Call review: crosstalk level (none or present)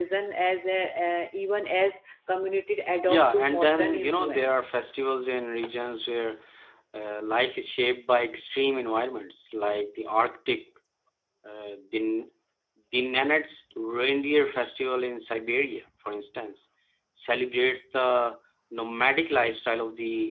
present